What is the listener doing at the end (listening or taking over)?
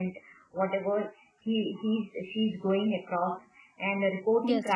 listening